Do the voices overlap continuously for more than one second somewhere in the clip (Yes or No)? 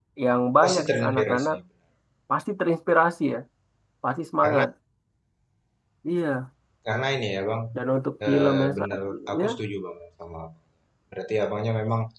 Yes